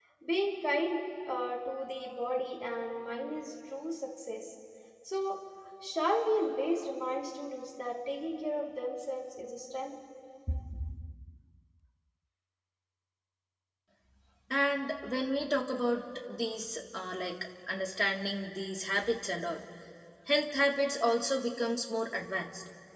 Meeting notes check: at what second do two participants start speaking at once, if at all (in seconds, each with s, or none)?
none